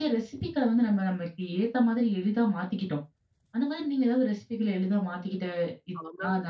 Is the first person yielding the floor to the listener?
Yes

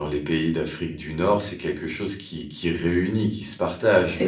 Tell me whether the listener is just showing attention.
Yes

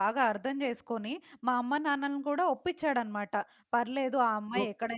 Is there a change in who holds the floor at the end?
No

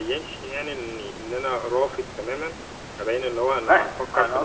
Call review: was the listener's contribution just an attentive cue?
No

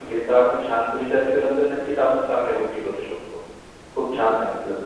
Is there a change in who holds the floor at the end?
No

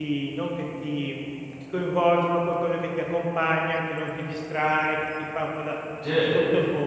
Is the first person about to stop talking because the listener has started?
No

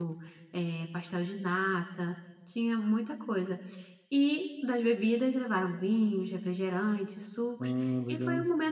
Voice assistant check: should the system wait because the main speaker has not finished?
Yes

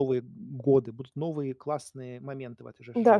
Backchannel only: No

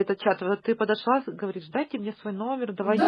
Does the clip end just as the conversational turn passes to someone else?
Yes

